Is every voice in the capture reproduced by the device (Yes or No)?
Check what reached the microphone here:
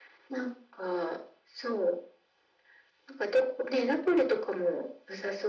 Yes